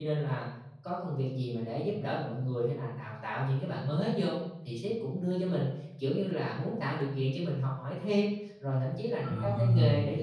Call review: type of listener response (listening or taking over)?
listening